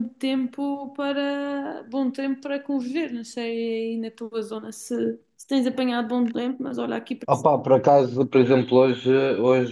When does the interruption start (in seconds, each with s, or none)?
none